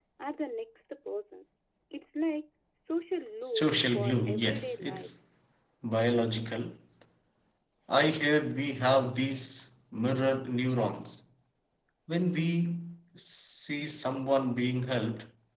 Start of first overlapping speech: 3.5 s

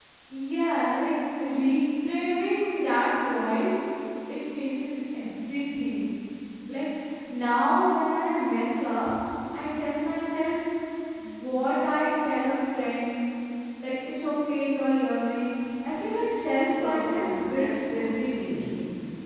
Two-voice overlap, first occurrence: 16.7 s

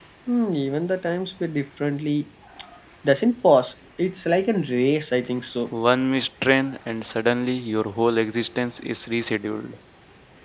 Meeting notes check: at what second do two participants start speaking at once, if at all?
none

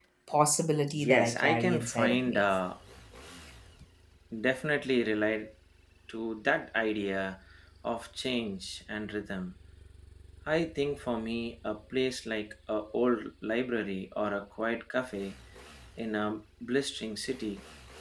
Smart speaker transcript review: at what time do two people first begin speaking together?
0.9 s

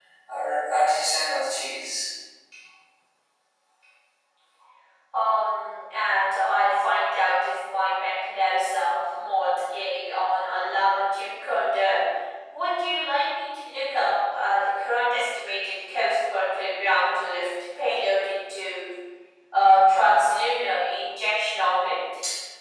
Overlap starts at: none

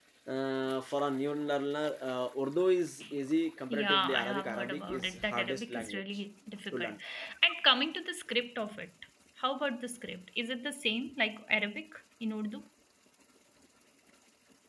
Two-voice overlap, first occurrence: 3.7 s

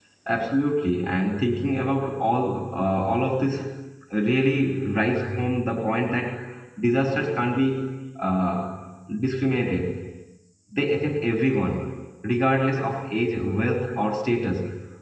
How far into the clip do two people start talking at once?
none

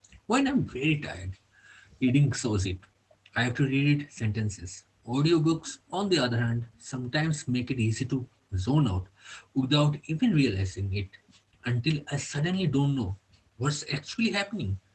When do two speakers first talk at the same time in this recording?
none

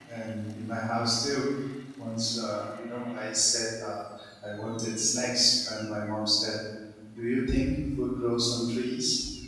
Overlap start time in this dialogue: none

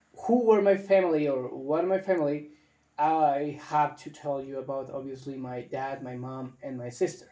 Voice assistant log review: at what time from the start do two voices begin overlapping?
none

